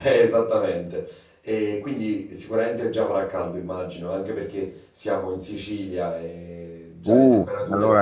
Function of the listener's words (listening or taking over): taking over